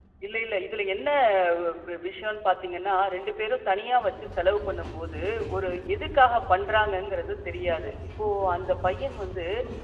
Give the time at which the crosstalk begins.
none

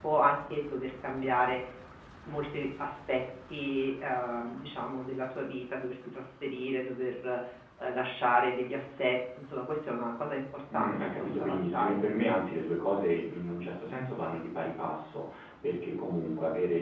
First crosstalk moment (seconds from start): 10.7 s

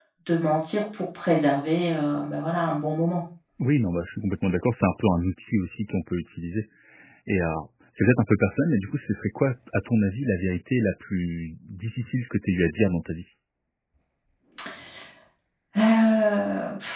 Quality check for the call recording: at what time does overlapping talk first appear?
none

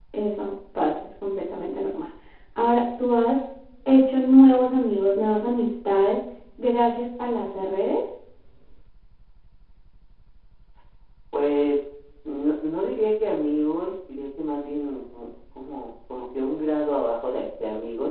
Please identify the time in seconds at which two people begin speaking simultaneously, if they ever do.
none

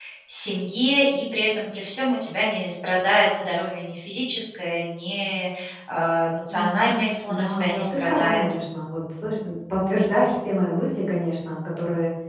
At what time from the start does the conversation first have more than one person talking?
6.5 s

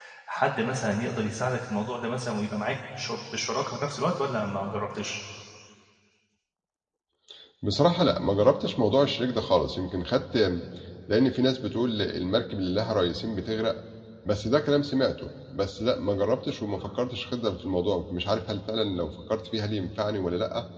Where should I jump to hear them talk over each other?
none

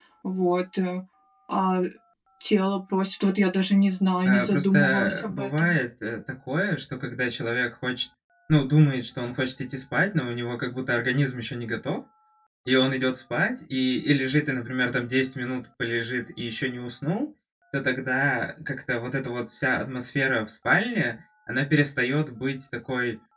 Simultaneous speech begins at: 4.2 s

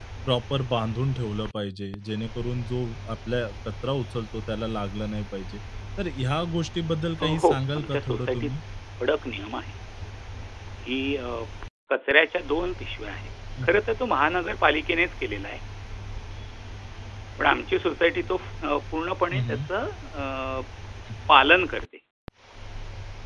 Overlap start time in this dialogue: 7.2 s

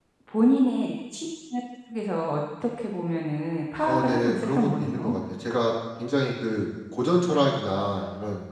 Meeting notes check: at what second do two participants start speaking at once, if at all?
3.8 s

